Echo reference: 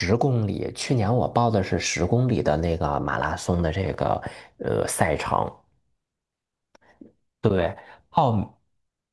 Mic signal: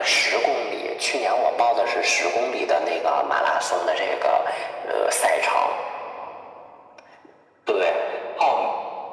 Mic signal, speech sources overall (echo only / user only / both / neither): echo only